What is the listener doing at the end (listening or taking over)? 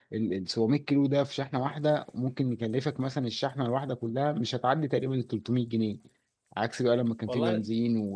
listening